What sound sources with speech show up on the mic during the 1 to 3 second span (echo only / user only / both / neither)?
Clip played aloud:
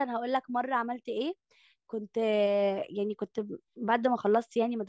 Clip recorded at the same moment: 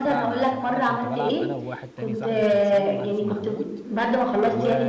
both